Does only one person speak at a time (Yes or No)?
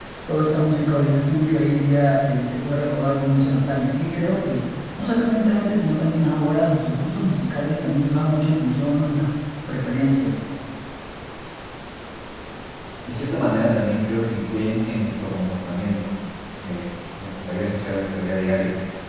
Yes